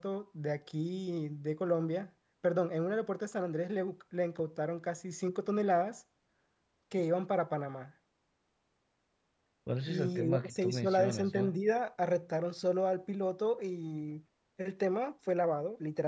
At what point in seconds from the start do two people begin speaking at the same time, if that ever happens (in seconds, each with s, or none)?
9.9 s